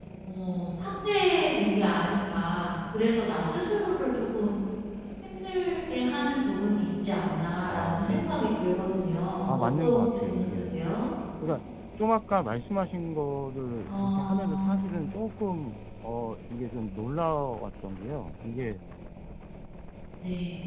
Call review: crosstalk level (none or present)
present